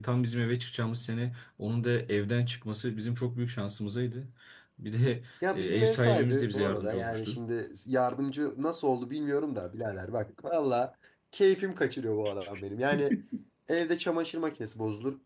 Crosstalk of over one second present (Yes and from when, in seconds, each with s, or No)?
Yes, from 5.5 s